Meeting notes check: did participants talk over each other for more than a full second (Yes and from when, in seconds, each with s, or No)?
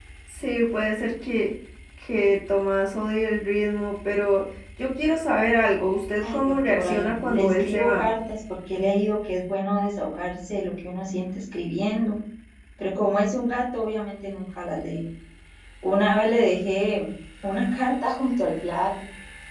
Yes, from 6.2 s